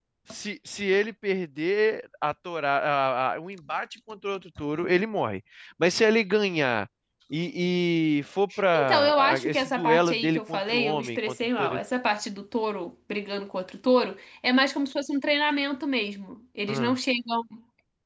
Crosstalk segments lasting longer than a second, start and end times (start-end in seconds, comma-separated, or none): 8.7-11.8